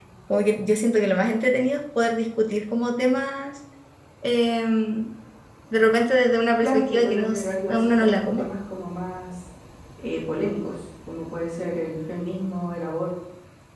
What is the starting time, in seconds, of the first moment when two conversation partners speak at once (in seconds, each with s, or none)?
6.6 s